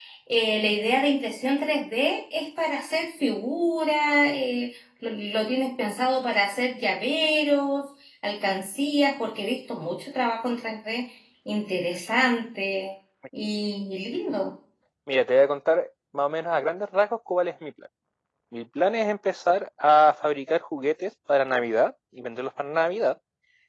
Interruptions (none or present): none